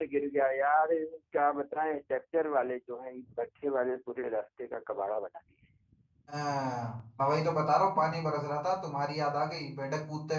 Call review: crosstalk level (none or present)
none